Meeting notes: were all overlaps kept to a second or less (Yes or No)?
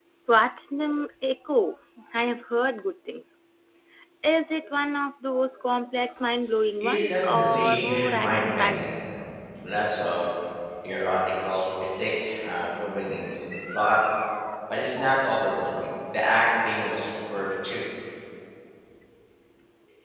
No